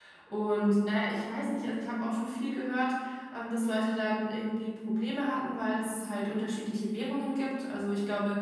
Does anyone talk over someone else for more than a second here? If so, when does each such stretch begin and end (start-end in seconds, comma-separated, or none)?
none